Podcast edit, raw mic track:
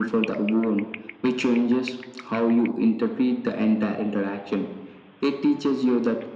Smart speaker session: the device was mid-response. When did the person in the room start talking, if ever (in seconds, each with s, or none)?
none